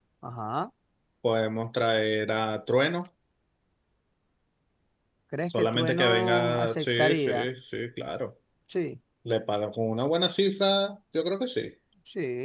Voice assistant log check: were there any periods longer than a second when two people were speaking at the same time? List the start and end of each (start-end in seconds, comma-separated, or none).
5.5-7.5